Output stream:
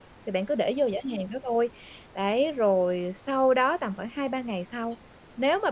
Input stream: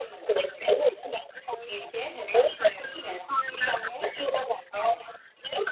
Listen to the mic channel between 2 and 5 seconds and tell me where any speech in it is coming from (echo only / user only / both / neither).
both